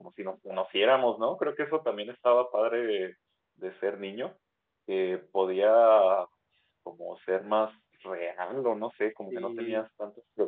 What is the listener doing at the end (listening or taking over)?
listening